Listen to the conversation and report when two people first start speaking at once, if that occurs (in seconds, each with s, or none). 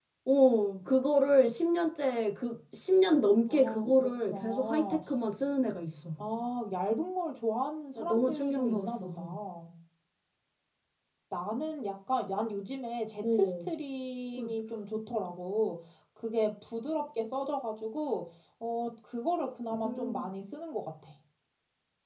3.5 s